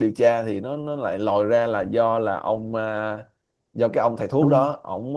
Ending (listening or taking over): listening